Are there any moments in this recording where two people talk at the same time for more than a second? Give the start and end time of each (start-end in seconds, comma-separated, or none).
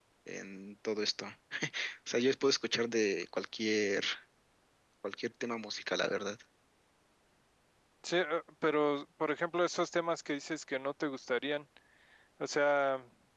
none